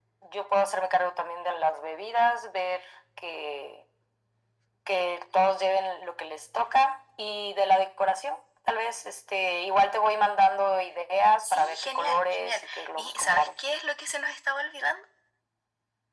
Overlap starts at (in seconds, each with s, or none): 11.4 s